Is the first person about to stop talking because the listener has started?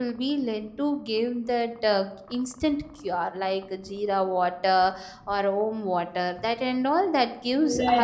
Yes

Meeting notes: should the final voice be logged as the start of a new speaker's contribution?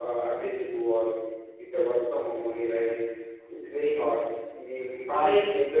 No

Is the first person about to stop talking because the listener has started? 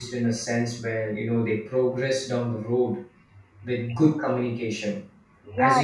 Yes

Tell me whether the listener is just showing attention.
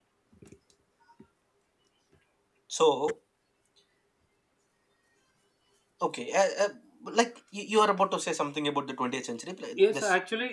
No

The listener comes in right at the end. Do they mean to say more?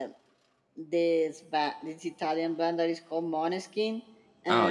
No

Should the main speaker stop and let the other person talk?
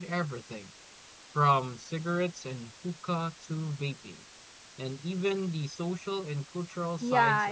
Yes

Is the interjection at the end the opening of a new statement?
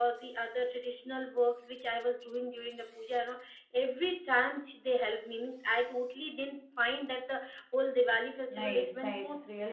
Yes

